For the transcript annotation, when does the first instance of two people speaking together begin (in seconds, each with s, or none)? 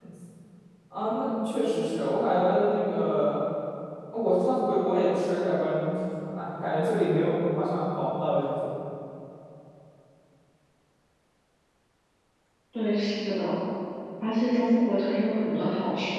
none